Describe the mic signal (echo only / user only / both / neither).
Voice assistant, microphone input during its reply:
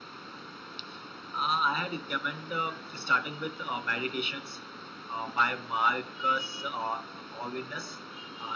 echo only